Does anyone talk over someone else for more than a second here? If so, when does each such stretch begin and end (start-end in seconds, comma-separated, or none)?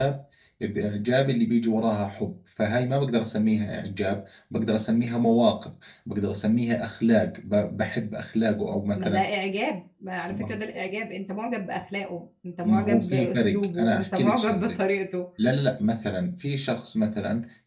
12.6-14.8